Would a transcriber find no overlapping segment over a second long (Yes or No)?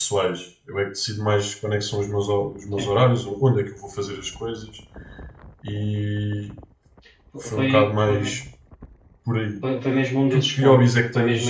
No